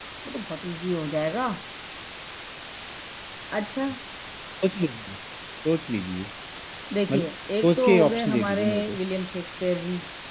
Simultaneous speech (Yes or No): Yes